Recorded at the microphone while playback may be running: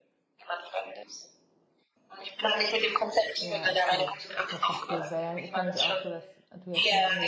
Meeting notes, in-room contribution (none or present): present